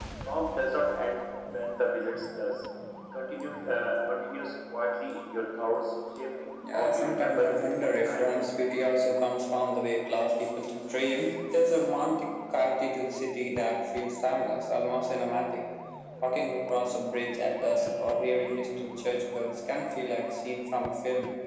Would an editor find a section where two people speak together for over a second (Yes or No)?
Yes